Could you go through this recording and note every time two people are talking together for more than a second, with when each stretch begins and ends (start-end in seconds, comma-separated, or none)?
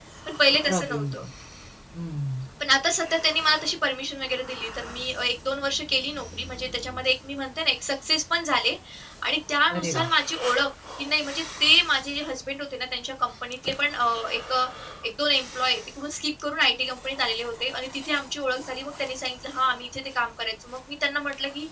none